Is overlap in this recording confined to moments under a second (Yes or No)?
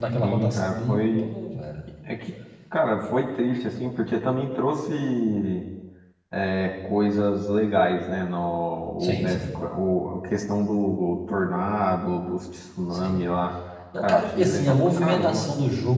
No